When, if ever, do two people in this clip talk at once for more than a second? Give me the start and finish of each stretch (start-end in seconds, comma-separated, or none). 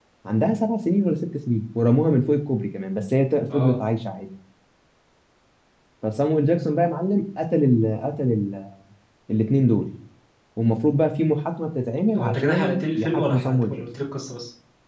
12.2-13.8